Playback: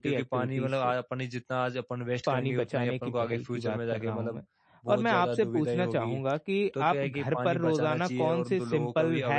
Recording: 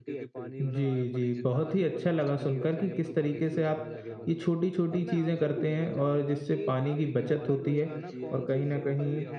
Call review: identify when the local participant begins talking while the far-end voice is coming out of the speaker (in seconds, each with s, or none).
0.6 s